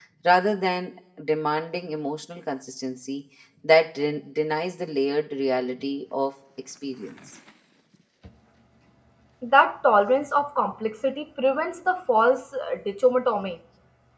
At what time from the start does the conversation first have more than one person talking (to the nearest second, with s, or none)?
none